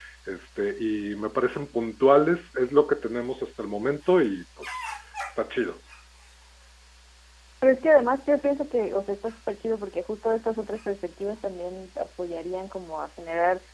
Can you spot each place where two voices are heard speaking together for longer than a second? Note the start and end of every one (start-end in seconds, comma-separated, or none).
none